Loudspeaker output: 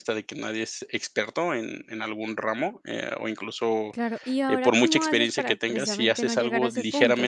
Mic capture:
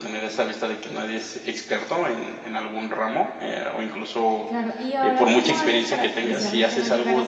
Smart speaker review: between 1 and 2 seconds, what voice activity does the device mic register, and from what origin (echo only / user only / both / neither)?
echo only